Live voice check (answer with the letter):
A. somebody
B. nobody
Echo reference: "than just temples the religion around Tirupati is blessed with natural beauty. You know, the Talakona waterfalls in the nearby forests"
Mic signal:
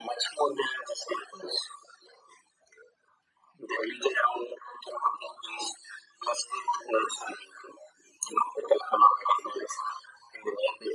B